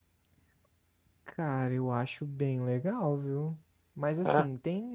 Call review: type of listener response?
listening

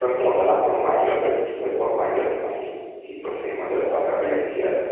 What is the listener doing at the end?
taking over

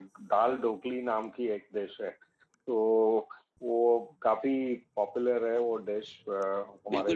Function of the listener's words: taking over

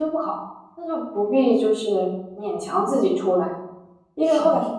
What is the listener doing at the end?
listening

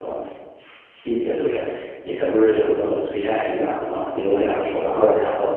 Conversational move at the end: listening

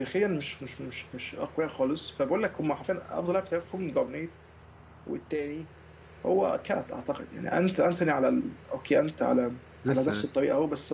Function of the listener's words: listening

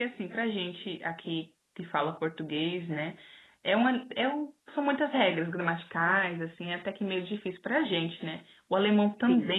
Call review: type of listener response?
listening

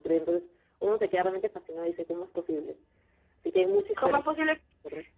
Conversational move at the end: taking over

